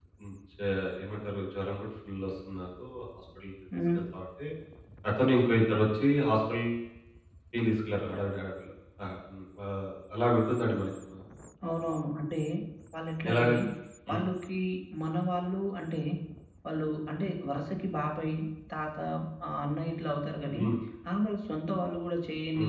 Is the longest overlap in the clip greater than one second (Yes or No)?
No